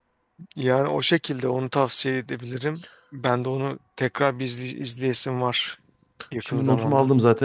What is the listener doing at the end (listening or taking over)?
taking over